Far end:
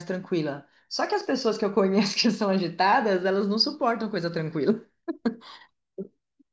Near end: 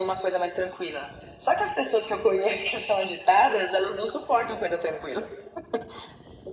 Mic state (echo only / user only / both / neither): echo only